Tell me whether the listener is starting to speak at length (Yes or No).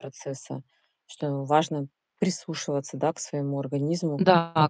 Yes